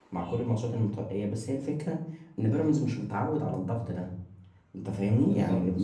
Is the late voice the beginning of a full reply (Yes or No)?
No